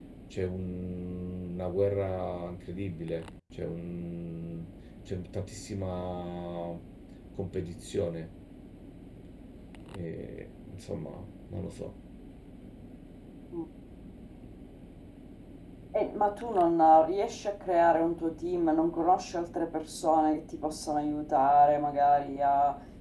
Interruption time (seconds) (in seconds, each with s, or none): none